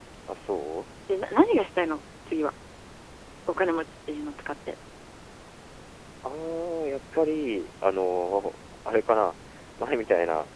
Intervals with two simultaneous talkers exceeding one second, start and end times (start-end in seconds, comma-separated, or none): none